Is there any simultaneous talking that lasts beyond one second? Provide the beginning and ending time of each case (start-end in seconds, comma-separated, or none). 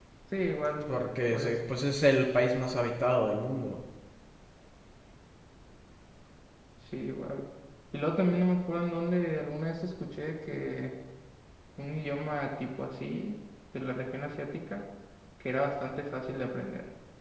none